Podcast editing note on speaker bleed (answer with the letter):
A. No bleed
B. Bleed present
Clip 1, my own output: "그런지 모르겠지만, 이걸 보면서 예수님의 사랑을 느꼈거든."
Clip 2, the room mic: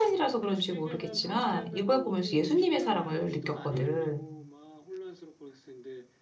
B